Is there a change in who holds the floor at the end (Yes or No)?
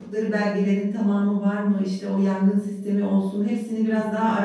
No